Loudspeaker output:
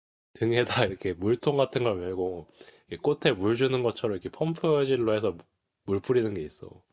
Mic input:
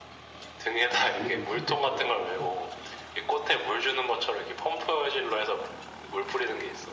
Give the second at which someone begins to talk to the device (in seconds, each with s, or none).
0.9 s